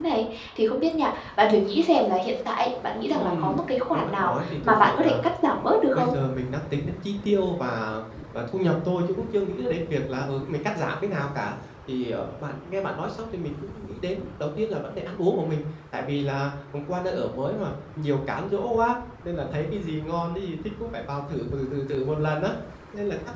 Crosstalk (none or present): present